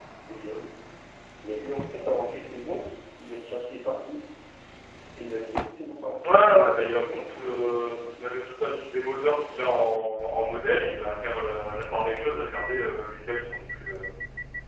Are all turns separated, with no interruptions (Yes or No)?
No